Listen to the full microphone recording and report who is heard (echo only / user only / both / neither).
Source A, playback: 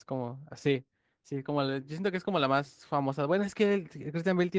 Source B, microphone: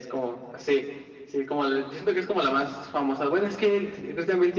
echo only